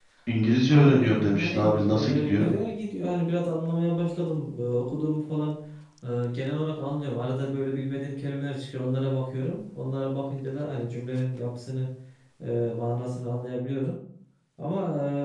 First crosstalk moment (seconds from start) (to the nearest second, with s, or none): 1 s